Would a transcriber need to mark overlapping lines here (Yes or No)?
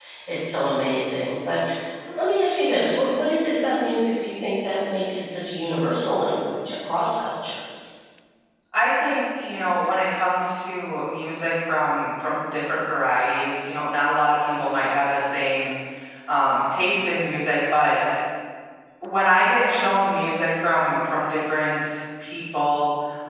No